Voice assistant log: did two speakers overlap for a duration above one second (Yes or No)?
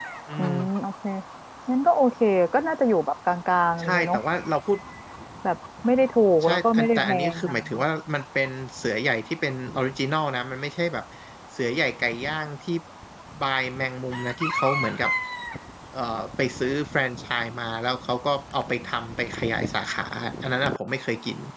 Yes